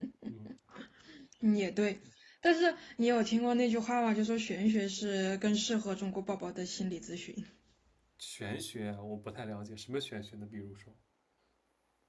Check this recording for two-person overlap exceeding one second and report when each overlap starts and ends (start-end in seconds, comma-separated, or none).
none